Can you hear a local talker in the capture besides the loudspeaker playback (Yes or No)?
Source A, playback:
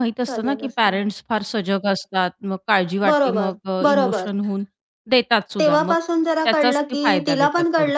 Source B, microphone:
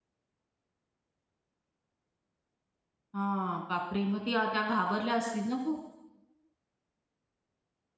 Yes